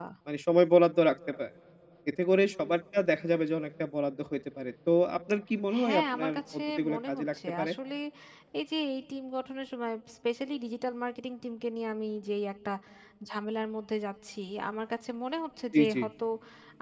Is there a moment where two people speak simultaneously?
Yes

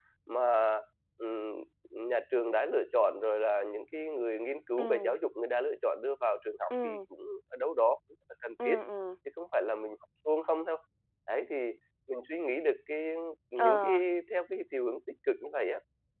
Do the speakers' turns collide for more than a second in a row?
No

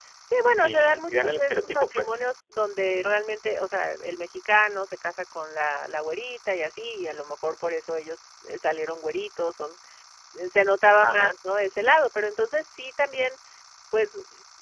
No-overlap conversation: No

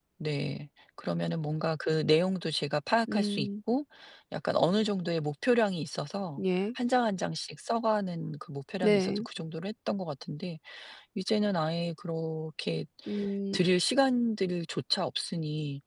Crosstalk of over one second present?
No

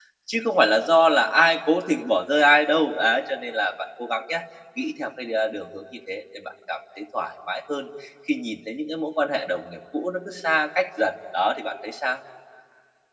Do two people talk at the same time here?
No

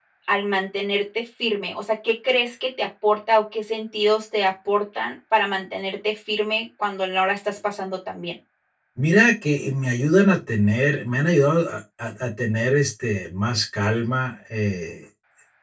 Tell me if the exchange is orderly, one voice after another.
Yes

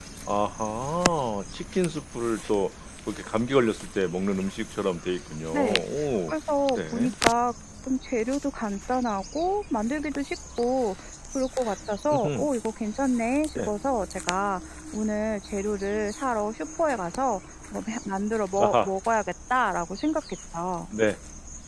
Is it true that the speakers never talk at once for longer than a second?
Yes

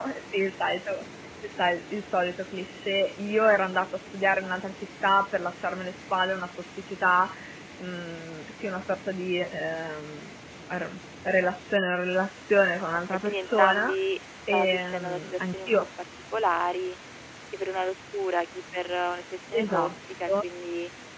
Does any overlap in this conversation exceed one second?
Yes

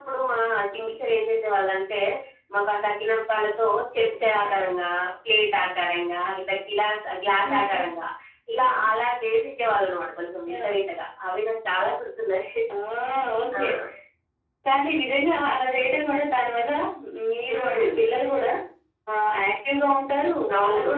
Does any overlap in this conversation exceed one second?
No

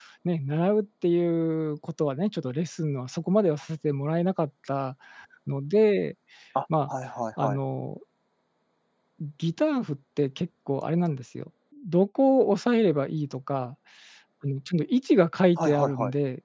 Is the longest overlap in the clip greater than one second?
No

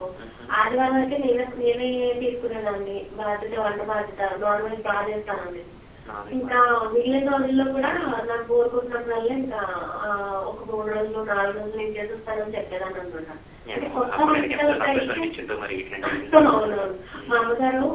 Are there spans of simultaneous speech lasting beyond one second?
Yes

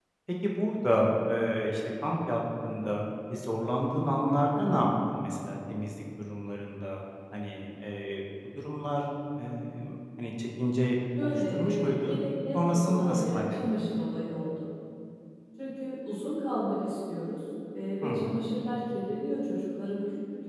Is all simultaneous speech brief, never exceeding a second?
No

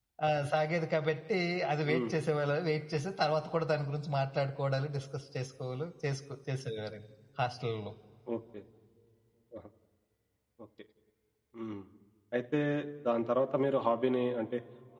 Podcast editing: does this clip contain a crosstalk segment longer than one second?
No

